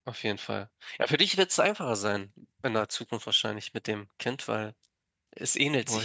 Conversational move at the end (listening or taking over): listening